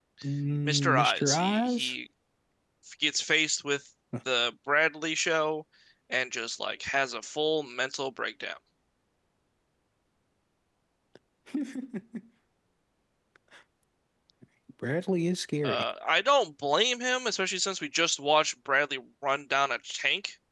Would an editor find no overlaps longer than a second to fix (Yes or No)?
No